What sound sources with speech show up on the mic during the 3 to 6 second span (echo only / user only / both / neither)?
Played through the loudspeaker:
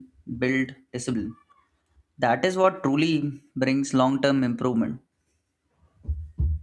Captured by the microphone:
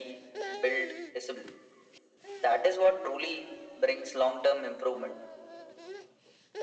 echo only